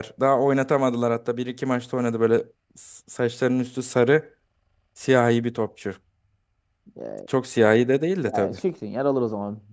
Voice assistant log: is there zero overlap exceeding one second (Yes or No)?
Yes